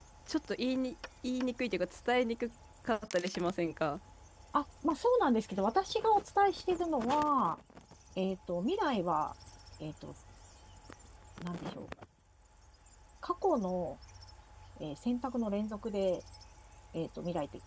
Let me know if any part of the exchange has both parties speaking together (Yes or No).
No